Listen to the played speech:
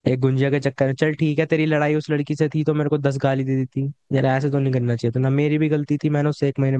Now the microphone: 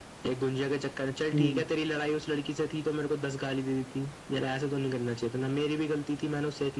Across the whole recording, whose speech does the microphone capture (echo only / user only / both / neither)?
both